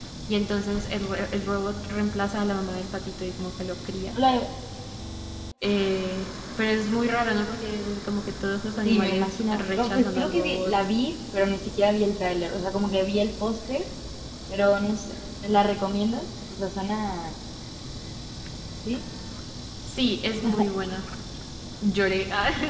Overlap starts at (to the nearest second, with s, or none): 9 s